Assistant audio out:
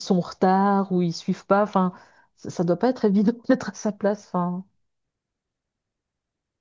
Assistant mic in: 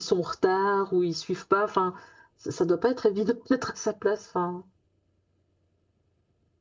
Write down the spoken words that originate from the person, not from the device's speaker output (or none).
none